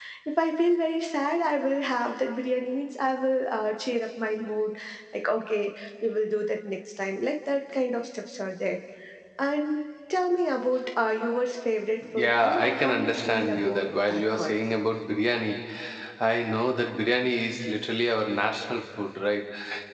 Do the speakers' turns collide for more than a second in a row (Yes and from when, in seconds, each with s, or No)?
Yes, from 12.0 s